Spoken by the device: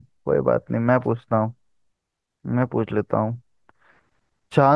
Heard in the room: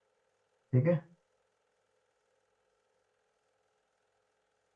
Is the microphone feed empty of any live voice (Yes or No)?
No